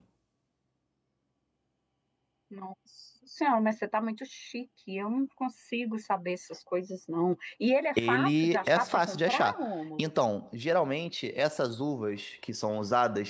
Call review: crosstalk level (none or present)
present